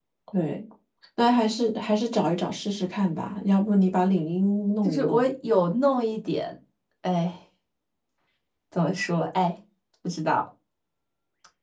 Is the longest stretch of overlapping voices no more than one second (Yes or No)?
Yes